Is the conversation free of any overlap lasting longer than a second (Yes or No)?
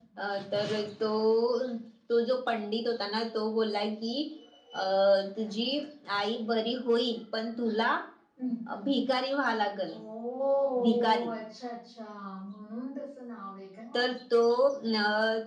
Yes